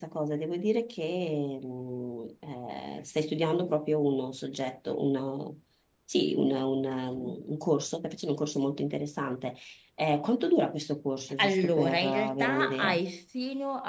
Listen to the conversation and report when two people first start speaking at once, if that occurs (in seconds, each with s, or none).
11.3 s